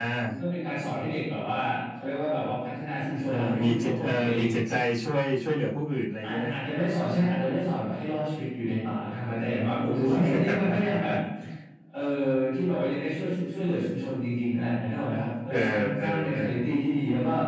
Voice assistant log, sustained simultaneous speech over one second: present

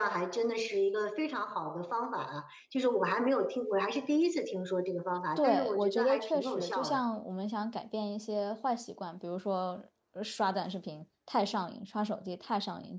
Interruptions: present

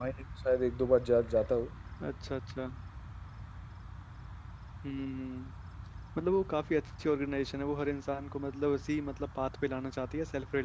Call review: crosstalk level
none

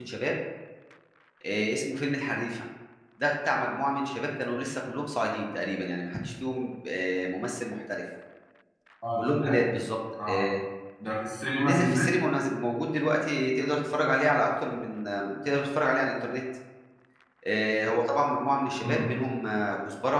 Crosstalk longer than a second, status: none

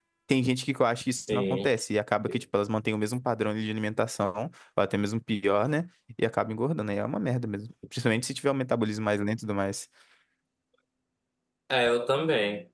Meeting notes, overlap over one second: none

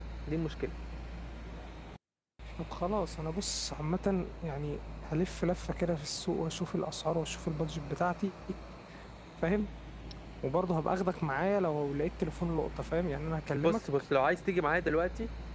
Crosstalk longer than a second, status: none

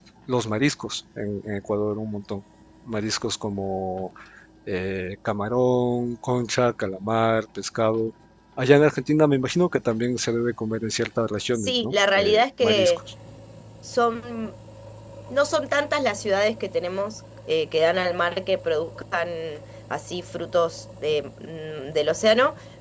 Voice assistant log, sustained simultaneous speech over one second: present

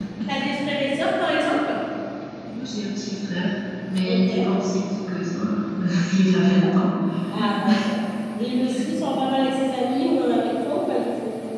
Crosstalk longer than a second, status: none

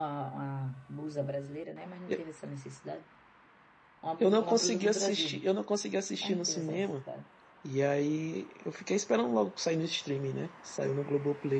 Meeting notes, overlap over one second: present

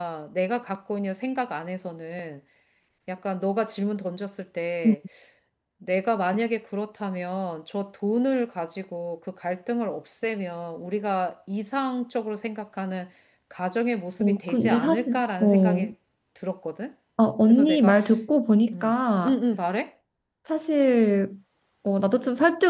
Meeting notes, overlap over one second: present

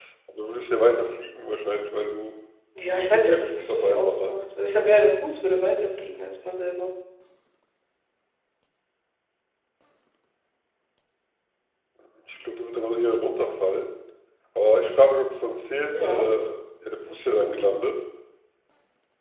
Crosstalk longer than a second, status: present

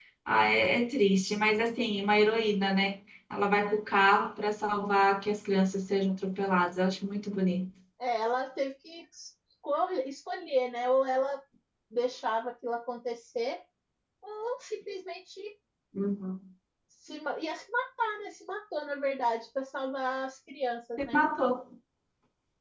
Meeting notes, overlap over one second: none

